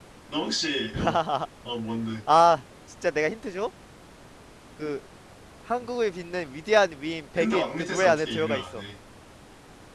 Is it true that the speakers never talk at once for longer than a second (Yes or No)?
No